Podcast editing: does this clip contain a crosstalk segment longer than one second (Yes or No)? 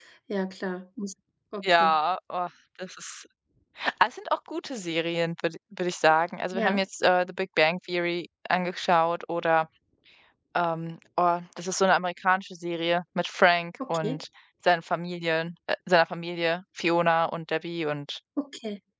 No